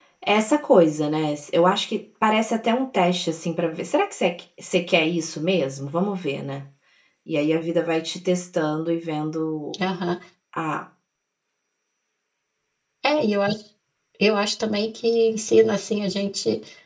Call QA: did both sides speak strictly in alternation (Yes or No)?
Yes